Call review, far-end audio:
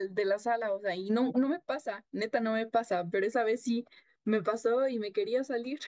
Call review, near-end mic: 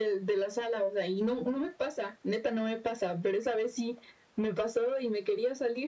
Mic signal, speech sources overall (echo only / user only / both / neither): echo only